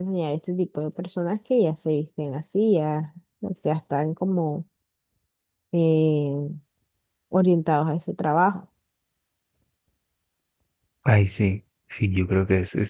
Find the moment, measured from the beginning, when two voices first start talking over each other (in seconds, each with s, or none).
none